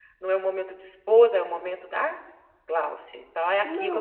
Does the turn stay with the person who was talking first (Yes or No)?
No